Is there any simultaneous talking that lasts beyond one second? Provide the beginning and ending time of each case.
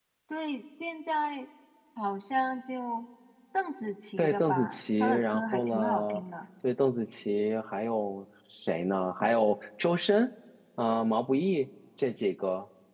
4.2-6.2

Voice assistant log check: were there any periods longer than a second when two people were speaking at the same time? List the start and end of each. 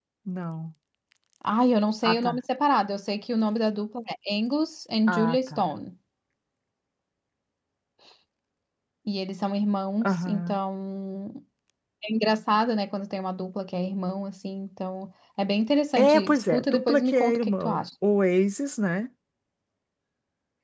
16.0-17.8

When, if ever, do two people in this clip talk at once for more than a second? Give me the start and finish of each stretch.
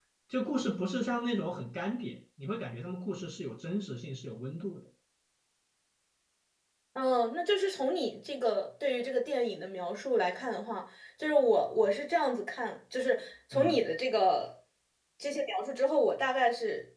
none

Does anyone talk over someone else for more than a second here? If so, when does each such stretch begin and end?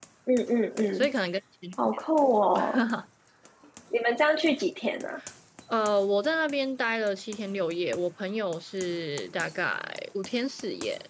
none

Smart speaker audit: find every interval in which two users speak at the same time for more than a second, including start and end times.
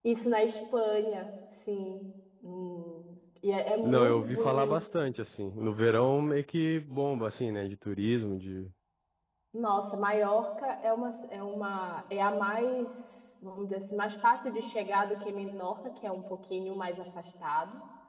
3.8-5.1

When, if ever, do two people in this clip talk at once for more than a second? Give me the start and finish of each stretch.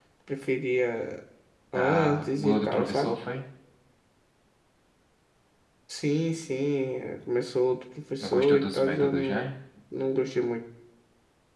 1.8-3.1, 8.2-9.5

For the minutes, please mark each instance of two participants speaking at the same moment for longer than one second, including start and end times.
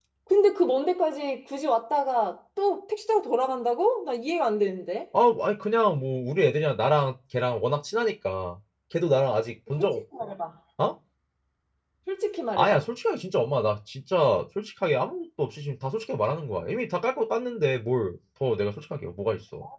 none

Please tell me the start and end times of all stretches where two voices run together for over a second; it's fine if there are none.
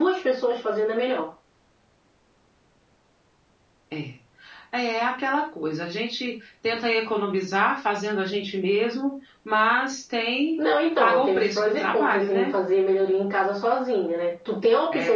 11.0-12.5

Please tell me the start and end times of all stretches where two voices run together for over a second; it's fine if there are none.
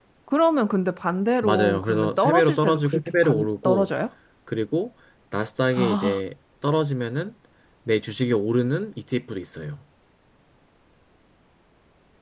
1.4-3.9

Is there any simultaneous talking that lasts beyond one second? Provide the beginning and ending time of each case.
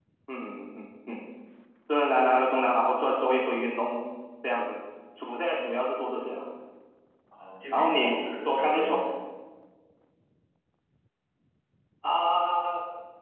7.7-9.0

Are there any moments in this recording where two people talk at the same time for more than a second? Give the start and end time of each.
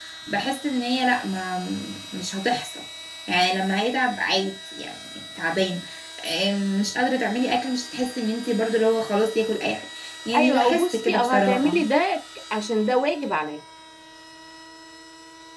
10.3-11.8

